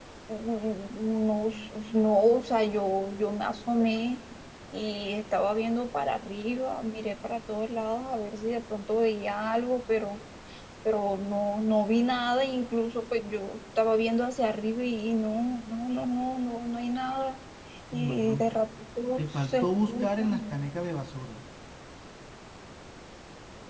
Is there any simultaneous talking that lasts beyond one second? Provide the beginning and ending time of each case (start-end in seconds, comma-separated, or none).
19.2-20.4